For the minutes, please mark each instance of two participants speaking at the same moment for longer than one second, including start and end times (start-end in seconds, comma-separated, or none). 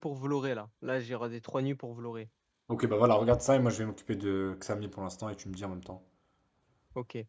none